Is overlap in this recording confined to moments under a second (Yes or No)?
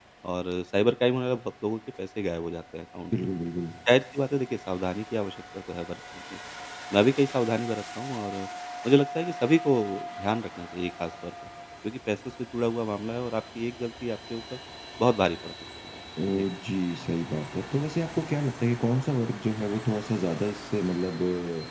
Yes